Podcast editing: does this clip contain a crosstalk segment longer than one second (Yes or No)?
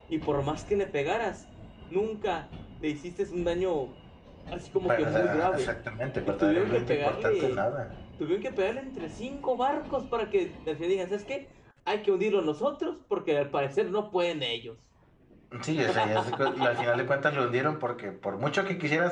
Yes